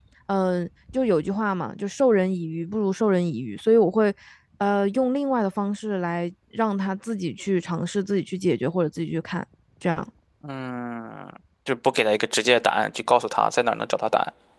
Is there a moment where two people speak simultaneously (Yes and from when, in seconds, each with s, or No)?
No